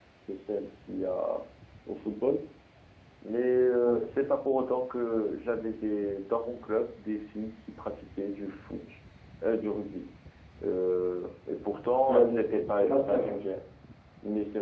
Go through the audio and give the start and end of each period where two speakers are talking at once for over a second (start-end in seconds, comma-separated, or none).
12.0-13.4